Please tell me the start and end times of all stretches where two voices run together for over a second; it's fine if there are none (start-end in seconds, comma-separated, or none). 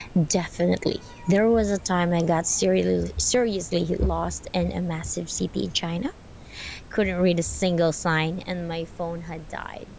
none